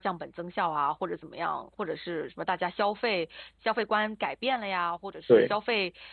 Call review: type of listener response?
listening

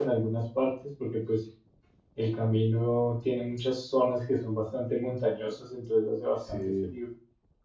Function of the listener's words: listening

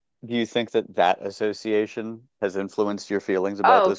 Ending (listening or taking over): taking over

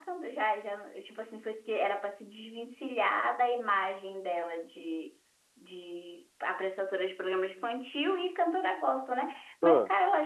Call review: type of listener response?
listening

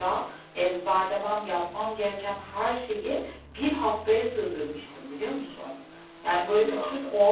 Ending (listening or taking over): listening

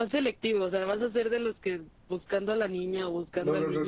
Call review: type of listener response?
taking over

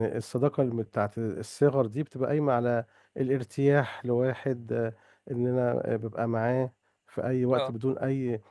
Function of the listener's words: listening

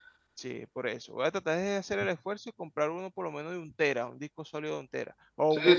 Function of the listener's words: taking over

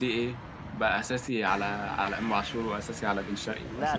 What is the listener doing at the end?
taking over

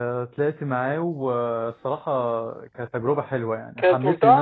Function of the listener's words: listening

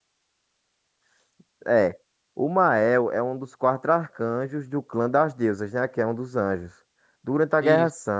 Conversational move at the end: listening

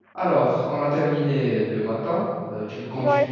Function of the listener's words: listening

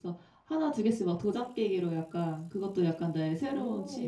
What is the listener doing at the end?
listening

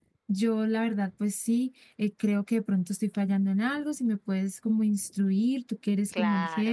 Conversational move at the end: taking over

